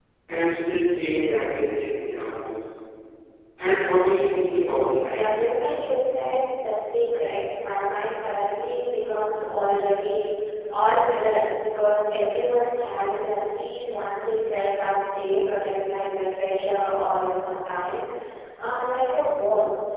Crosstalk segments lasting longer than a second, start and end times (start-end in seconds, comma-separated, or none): none